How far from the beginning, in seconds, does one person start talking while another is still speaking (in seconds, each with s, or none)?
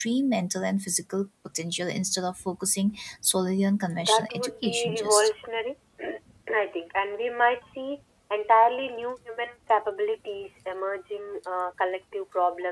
4.0 s